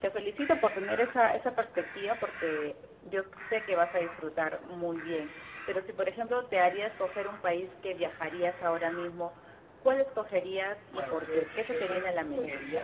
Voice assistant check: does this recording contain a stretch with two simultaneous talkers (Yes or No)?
Yes